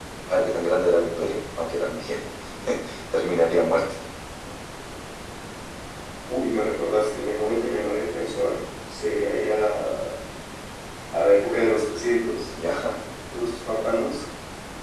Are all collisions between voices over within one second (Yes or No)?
Yes